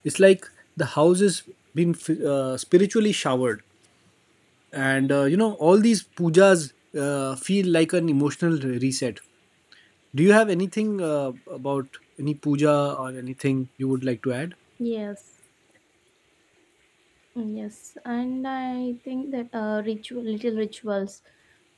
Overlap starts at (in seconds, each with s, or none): none